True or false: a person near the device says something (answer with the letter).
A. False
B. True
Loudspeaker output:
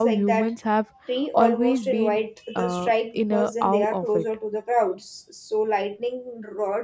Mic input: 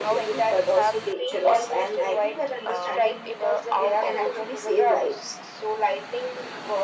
B